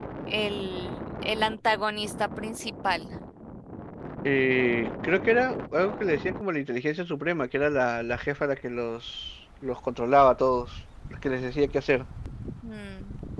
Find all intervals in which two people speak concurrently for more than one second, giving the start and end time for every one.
none

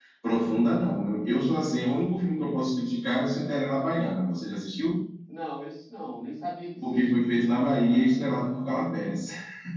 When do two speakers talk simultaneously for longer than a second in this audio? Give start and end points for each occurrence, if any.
none

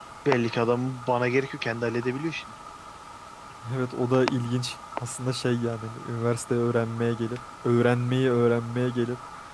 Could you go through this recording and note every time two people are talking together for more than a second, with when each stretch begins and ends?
none

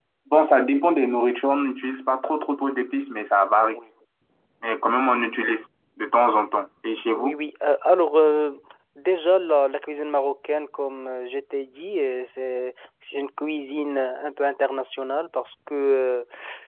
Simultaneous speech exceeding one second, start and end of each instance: none

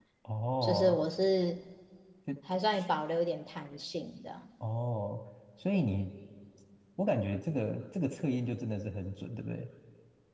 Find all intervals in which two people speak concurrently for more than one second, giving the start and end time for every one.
none

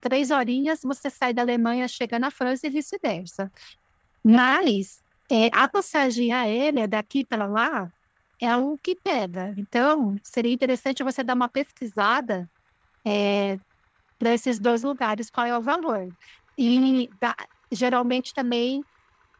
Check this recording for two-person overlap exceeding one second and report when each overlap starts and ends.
none

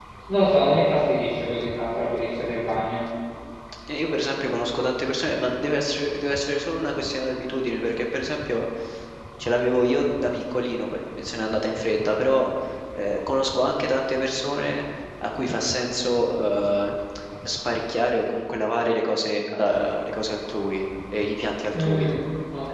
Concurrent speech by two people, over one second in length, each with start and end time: none

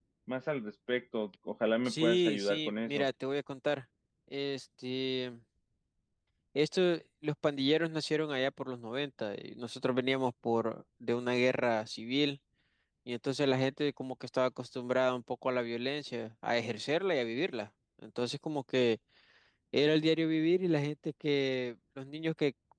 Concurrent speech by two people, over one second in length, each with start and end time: 1.9-3.0

